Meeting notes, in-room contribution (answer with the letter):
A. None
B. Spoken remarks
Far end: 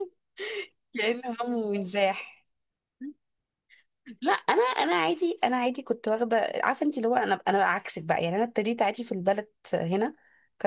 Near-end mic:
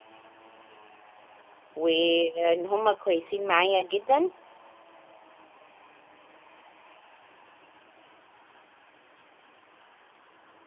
B